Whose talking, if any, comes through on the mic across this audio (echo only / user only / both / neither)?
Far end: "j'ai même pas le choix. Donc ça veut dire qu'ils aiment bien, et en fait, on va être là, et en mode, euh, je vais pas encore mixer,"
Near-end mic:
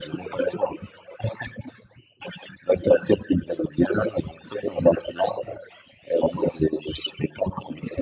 echo only